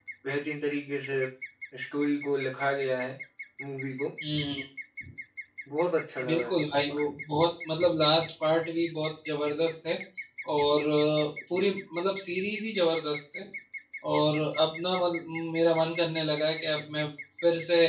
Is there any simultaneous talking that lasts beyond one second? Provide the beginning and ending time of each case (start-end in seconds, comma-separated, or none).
none